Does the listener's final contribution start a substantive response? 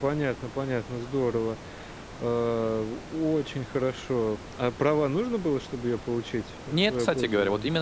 Yes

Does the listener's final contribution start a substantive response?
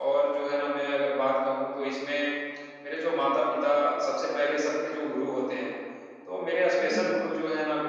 No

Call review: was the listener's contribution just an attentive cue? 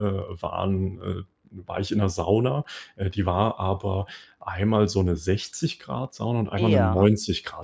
Yes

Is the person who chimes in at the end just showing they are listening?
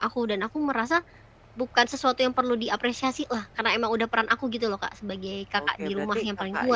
No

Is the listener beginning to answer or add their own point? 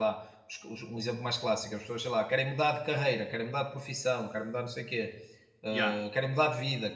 No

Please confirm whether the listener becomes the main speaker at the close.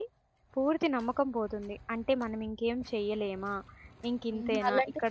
Yes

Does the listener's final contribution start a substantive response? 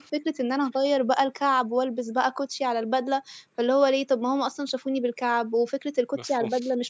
No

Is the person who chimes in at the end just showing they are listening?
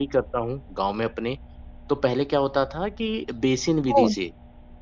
Yes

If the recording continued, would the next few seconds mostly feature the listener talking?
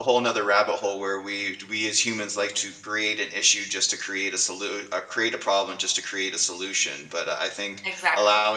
No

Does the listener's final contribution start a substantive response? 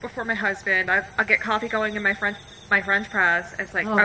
No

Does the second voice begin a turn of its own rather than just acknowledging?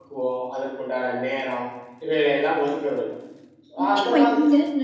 Yes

